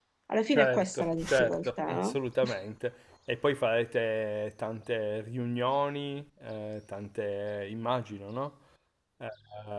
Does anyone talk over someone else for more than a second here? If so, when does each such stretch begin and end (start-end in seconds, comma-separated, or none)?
0.5-2.2